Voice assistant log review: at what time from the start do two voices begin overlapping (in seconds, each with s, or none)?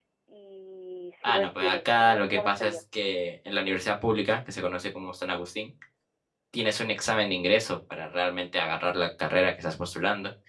1.2 s